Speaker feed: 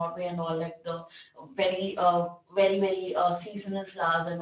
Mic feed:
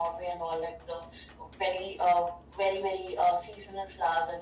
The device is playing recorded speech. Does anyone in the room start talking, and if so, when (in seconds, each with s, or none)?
none